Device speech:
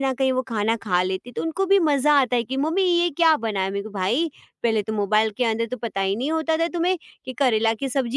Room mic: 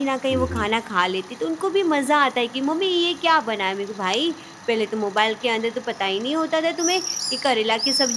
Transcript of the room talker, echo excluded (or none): हुँ, हुँ,